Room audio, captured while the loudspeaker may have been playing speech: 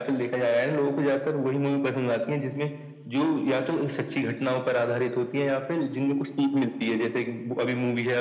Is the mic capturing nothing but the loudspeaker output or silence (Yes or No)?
Yes